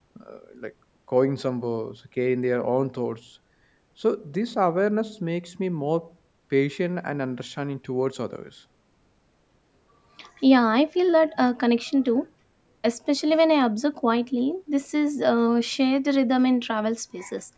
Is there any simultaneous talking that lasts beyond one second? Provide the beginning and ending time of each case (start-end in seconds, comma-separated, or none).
none